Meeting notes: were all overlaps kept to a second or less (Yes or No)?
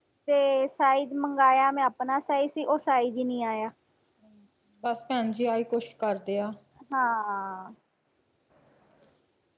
Yes